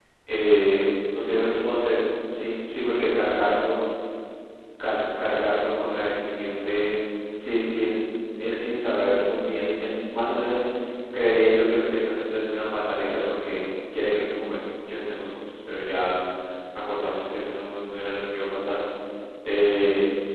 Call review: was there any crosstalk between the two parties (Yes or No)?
No